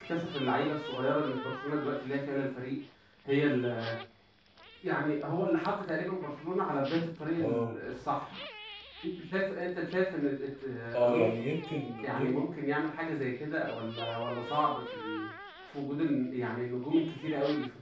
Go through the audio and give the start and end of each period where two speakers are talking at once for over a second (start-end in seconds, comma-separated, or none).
none